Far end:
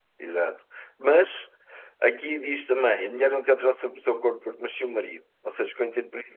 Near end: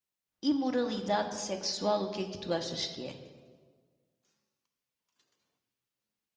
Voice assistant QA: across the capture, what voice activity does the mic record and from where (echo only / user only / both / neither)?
user only